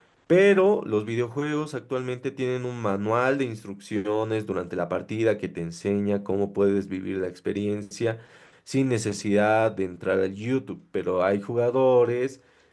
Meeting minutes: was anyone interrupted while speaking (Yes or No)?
No